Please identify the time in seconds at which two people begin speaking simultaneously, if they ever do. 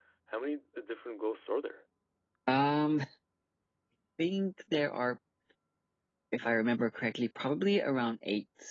none

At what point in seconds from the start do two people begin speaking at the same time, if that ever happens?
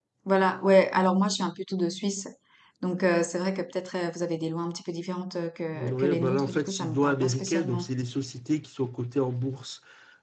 5.7 s

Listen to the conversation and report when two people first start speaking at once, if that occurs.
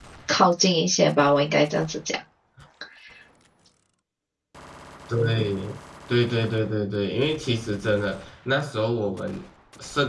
none

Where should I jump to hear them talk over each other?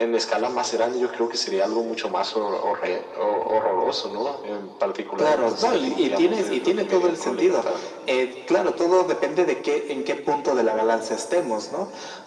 5.2 s

